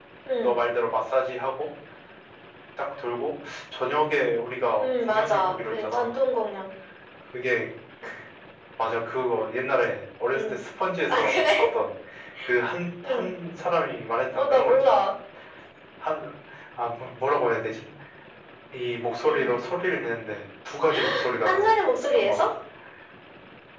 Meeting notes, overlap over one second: present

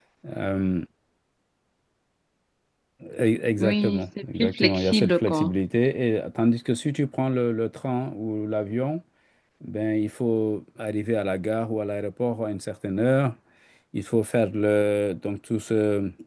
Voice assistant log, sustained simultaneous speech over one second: present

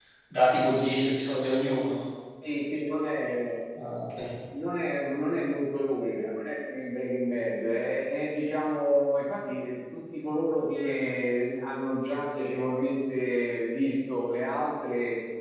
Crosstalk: none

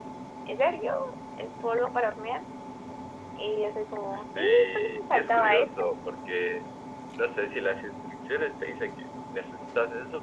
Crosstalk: present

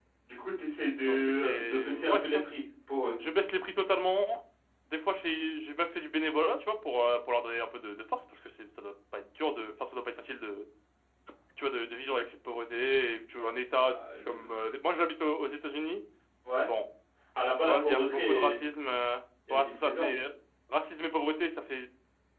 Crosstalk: present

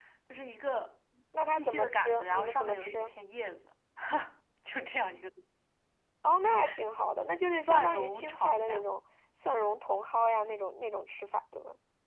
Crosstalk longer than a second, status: present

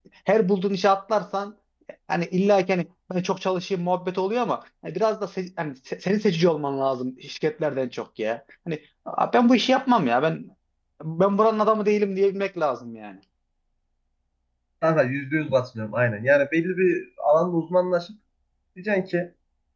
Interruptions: none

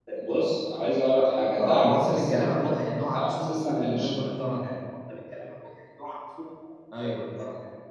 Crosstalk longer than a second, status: present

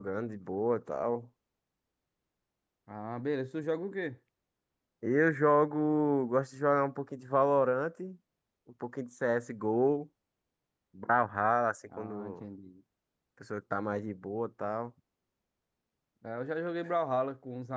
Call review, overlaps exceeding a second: none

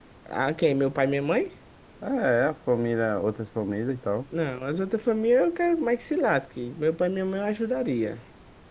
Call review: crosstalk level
none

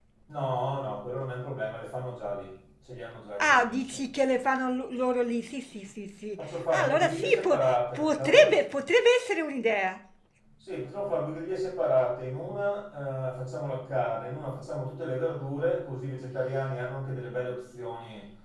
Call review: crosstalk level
present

